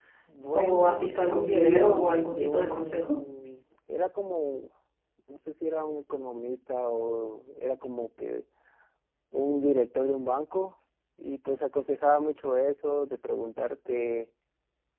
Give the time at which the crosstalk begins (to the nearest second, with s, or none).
1 s